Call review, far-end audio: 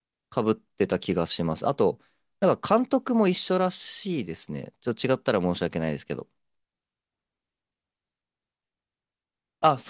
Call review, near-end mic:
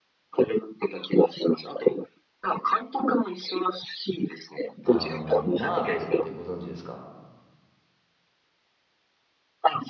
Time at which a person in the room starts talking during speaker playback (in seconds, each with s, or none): 4.8 s